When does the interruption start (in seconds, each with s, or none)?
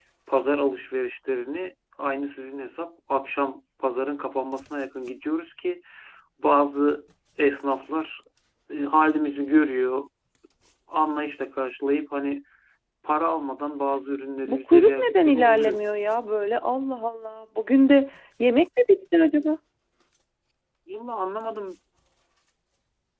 14.4 s